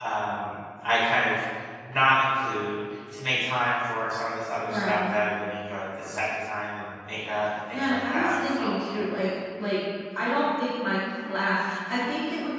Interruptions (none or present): present